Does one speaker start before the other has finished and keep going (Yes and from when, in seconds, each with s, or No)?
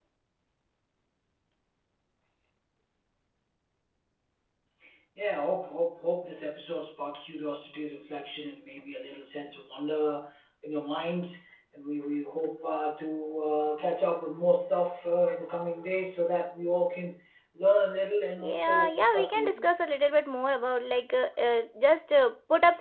Yes, from 18.4 s